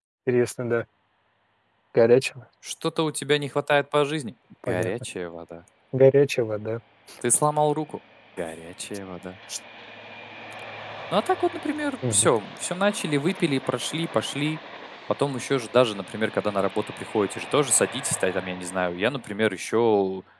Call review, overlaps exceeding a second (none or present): none